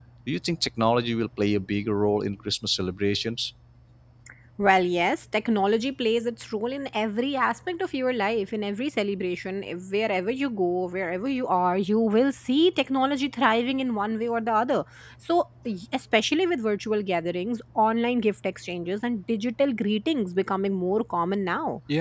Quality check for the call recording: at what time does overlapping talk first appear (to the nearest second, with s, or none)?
none